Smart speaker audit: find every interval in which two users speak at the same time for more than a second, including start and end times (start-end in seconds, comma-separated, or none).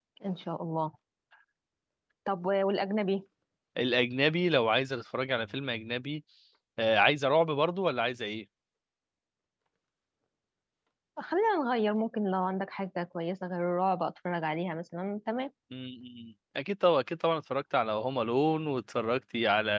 none